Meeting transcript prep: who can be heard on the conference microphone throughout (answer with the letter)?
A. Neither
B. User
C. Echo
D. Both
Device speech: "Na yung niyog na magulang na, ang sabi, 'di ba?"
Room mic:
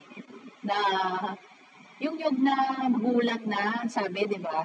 C